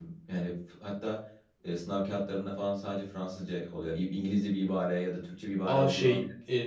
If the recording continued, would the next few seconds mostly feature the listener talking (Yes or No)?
Yes